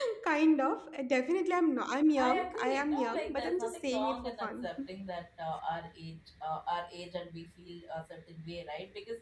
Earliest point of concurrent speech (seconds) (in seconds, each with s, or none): 2.2 s